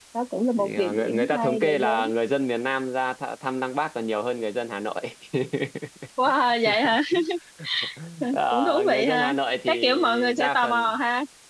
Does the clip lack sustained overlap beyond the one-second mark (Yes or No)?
No